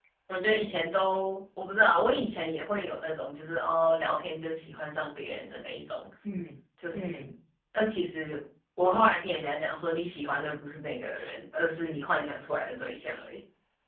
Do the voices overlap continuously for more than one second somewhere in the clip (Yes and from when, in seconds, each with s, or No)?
No